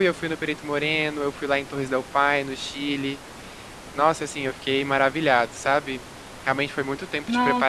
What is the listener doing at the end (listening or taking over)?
listening